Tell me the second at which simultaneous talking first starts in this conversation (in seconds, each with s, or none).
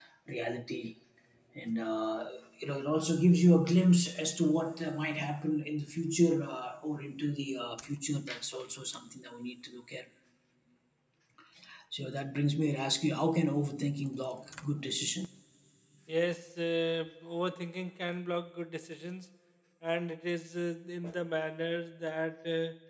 none